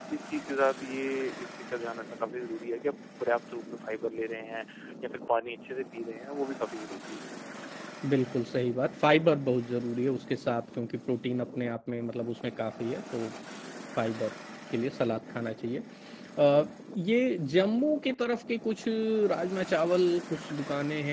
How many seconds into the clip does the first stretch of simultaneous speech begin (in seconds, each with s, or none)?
none